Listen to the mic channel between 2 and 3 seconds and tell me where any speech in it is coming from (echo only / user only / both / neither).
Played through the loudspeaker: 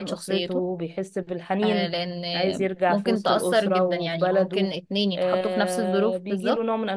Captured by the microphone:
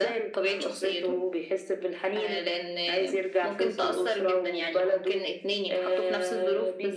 echo only